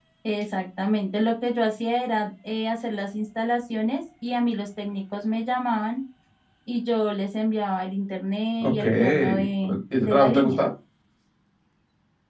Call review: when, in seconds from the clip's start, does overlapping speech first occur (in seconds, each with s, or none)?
8.6 s